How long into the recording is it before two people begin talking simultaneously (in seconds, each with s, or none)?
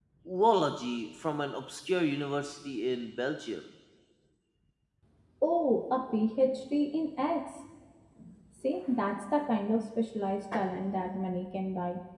none